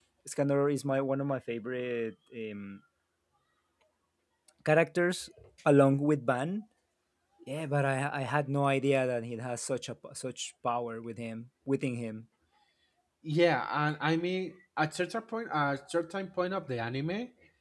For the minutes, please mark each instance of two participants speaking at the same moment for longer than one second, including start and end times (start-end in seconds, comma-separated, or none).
none